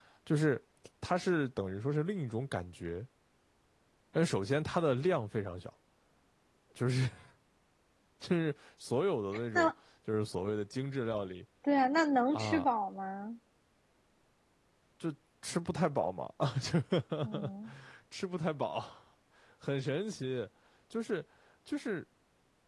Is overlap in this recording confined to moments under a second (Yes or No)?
Yes